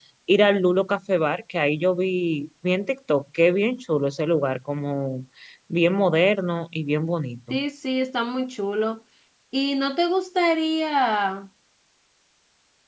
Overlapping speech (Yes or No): No